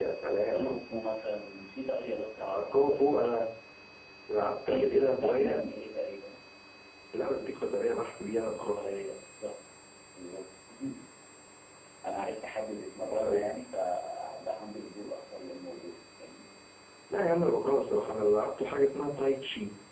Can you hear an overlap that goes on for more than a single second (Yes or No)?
Yes